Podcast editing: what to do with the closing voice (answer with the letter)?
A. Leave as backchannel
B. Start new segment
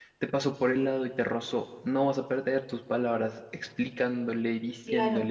B